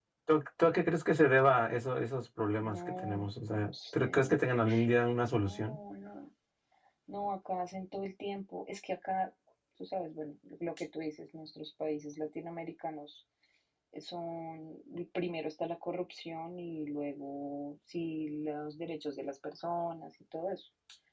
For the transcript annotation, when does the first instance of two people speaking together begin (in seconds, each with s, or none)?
2.7 s